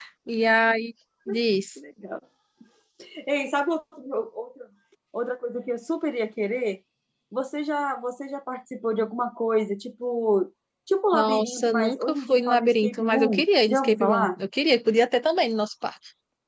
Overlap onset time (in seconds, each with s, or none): 11.1 s